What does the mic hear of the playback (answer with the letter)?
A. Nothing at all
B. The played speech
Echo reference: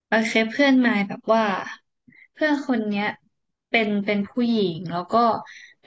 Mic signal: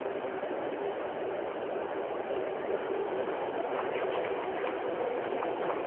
A